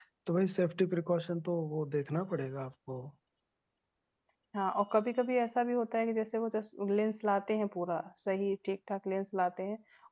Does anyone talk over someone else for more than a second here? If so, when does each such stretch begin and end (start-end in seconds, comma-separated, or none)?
none